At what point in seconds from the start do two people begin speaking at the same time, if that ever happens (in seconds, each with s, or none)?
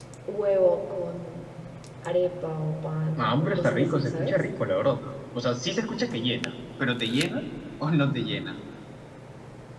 3.2 s